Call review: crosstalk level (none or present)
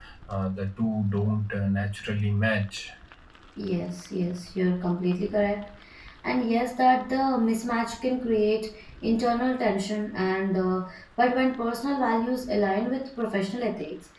none